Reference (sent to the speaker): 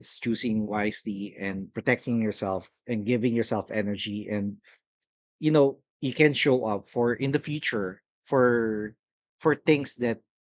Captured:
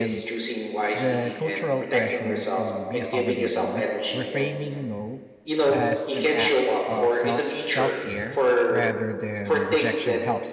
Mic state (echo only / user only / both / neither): both